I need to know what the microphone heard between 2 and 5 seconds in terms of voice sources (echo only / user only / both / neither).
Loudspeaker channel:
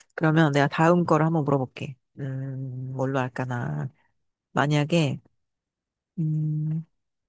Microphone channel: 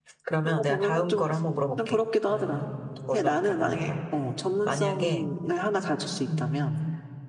both